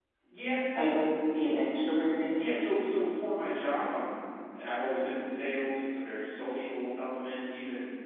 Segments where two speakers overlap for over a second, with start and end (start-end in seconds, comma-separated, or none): none